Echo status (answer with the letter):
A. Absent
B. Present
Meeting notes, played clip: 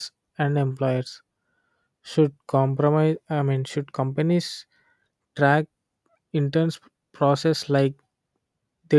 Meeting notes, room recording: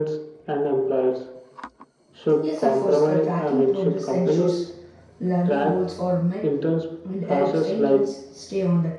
B